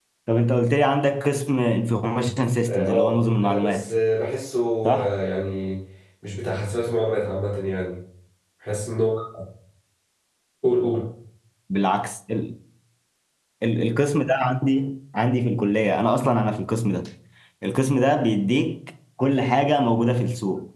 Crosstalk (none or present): present